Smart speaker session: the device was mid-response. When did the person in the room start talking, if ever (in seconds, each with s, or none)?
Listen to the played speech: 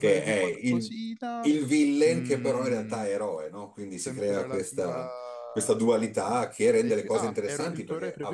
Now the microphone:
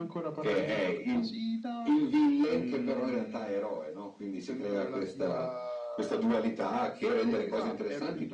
none